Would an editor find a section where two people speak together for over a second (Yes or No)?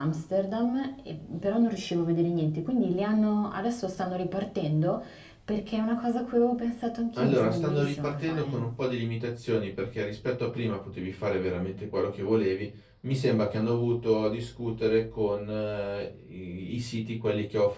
Yes